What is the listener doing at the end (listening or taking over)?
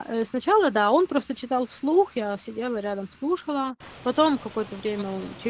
listening